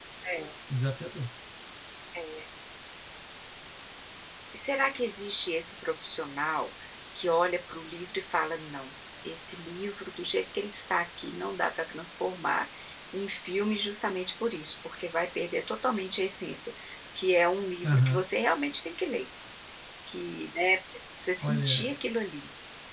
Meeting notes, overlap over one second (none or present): none